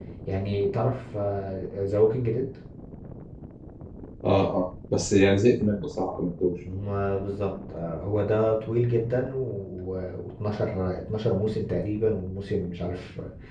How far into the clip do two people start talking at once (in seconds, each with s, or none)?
none